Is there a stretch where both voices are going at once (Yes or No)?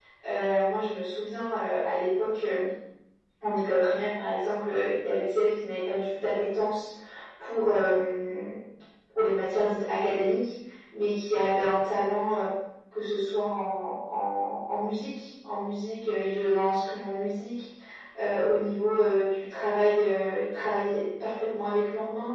No